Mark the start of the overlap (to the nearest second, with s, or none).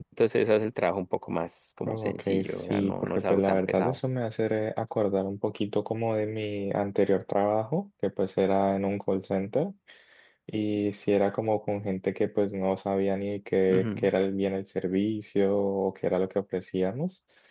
2 s